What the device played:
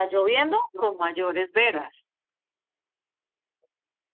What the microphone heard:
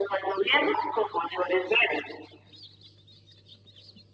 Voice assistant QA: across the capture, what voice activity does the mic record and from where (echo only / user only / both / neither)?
echo only